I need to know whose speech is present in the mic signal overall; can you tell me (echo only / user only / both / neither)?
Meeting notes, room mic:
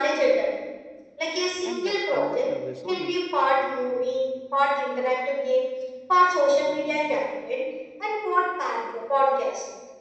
both